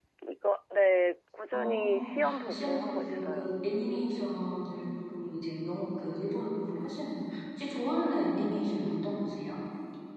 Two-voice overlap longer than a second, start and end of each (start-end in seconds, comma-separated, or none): 1.5-3.5